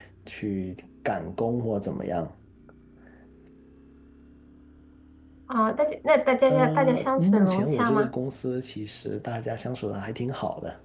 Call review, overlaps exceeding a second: present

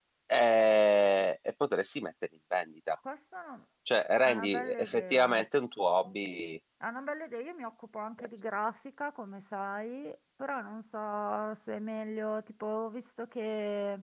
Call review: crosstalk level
present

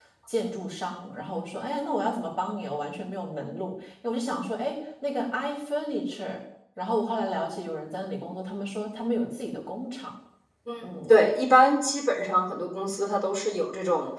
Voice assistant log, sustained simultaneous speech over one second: none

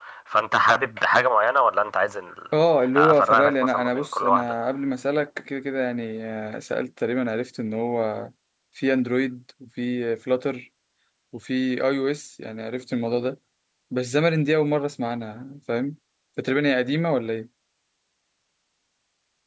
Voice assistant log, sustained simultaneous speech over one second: present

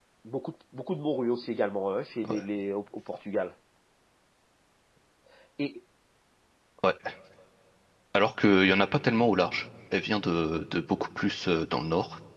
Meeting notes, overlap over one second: none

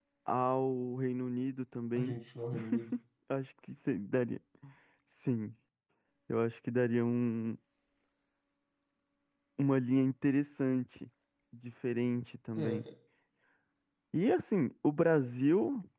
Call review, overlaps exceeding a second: none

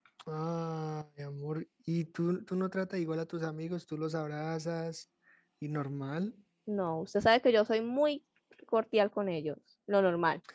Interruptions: none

